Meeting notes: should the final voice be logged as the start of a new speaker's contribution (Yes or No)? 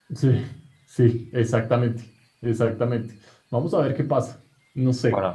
No